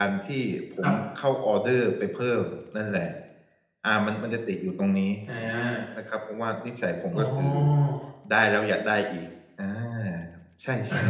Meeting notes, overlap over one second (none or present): none